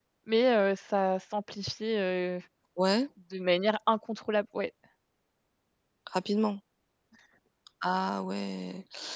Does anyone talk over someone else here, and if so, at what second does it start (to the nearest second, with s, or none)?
none